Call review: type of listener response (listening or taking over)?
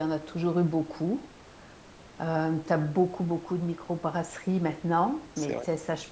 listening